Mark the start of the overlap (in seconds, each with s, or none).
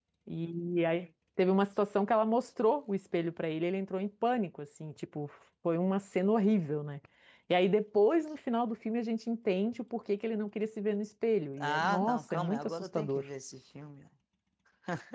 11.6 s